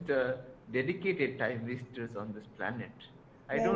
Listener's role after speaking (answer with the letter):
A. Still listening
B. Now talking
A